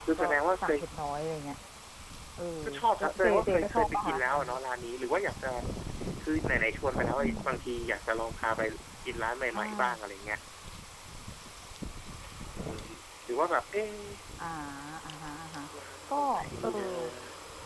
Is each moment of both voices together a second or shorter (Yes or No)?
No